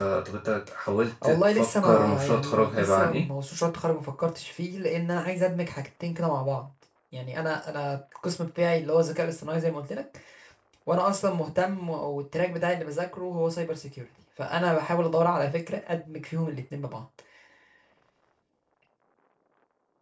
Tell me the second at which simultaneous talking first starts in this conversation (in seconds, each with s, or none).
1.2 s